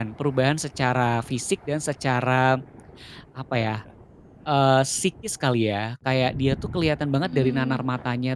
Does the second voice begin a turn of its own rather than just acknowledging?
No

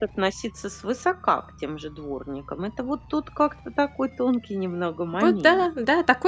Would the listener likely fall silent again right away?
No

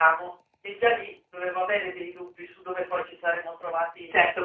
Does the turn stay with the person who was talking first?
No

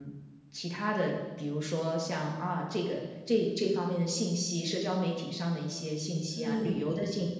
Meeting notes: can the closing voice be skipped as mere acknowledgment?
Yes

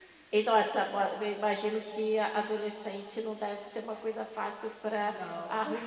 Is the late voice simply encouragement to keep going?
Yes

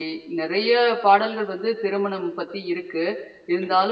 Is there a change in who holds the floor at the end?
No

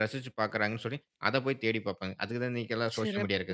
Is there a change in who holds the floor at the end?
Yes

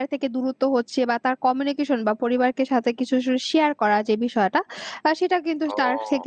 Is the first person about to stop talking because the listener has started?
No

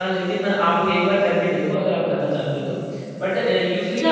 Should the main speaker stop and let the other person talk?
Yes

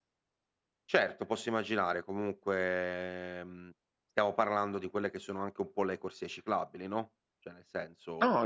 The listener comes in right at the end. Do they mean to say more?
Yes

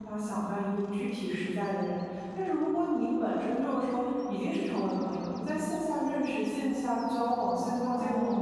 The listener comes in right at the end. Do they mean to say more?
No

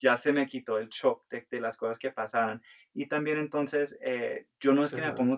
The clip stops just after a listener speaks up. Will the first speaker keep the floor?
Yes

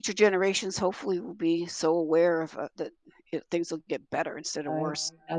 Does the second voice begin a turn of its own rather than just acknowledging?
Yes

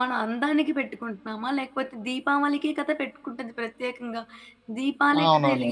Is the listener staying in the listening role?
Yes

